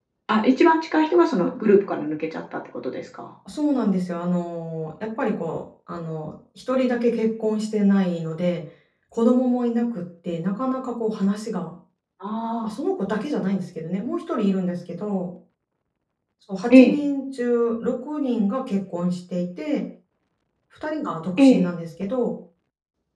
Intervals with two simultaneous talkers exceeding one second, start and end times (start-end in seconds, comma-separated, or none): none